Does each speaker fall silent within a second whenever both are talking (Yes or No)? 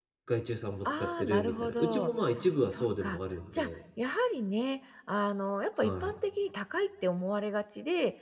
No